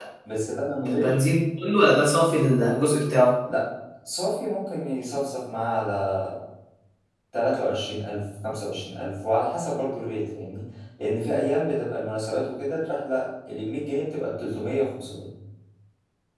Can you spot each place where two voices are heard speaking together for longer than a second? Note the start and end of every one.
none

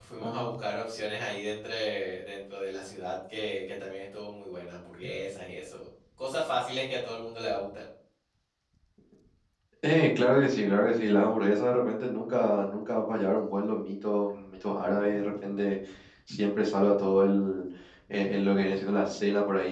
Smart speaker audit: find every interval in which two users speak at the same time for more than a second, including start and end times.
none

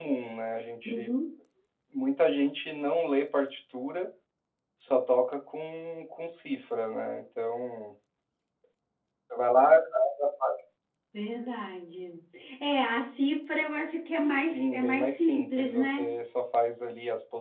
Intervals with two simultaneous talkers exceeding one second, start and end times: 14.1-16.1

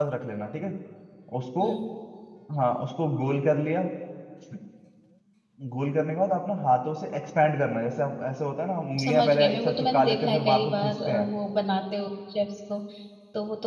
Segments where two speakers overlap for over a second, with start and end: 9.0-11.3

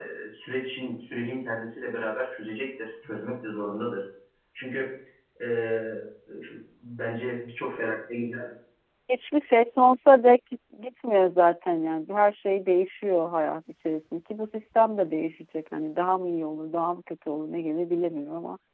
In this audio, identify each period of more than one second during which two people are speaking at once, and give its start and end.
none

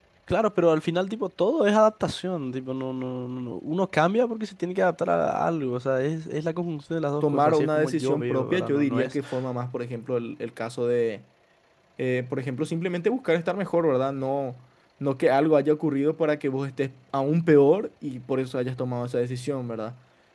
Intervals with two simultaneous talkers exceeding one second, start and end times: 7.2-9.1

